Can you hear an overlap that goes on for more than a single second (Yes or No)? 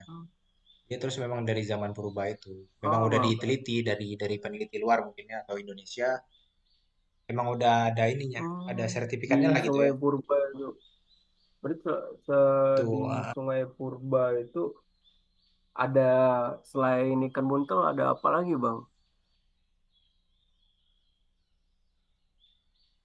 Yes